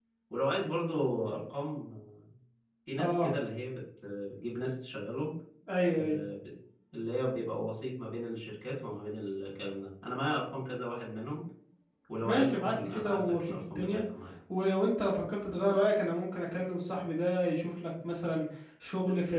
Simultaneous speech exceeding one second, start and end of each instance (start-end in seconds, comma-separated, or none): 12.2-14.0